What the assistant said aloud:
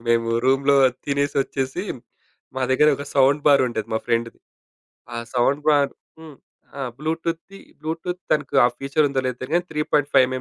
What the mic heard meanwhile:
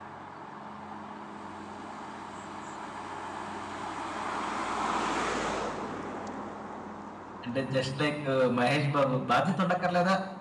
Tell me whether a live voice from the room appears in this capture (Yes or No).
Yes